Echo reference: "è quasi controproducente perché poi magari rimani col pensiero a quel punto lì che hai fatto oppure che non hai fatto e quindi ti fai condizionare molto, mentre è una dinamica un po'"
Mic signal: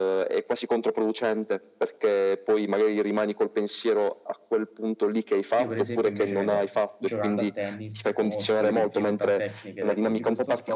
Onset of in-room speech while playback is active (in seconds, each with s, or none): 5.5 s